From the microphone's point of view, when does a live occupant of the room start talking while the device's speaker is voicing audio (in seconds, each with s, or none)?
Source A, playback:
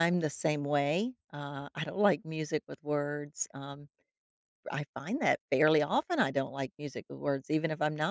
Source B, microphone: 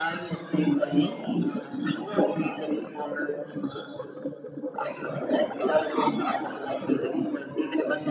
none